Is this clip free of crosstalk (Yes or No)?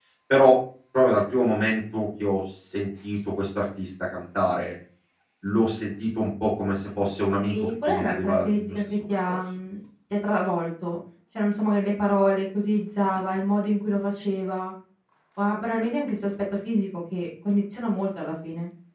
No